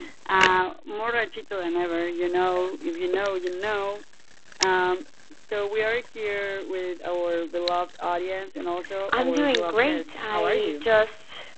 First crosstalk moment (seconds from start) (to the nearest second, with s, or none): 9 s